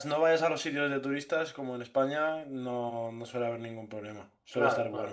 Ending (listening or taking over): taking over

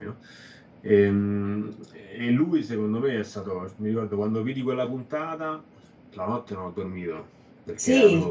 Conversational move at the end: listening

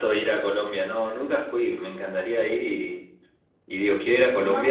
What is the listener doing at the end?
listening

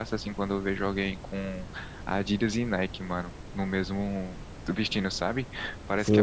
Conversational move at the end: taking over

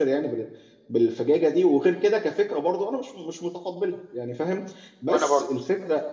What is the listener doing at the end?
listening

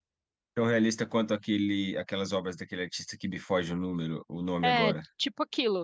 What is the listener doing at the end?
taking over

